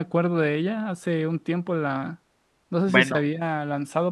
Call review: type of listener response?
listening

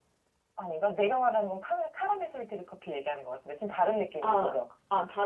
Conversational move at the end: taking over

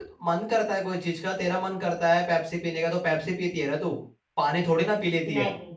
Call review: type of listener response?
listening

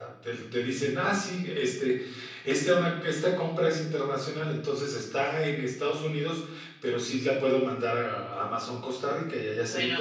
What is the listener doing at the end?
taking over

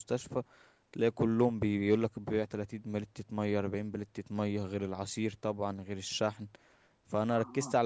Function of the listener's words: listening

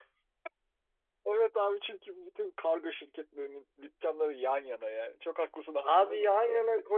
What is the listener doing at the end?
taking over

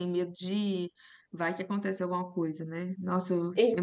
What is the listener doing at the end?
listening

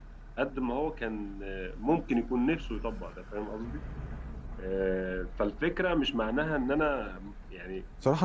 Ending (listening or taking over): taking over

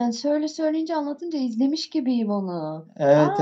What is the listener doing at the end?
taking over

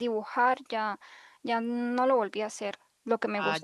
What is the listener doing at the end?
listening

